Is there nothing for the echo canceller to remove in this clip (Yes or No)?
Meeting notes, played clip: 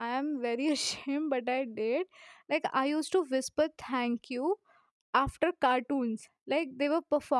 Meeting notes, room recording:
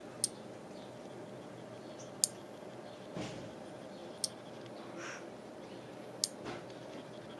Yes